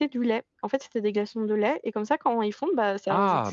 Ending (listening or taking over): taking over